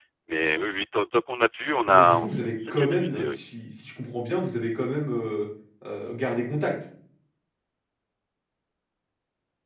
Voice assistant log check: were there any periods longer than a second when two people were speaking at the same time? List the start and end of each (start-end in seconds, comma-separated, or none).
1.9-3.4